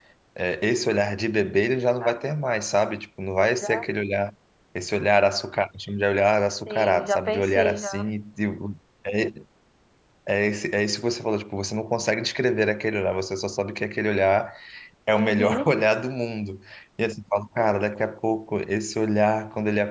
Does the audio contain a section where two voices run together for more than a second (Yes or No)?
Yes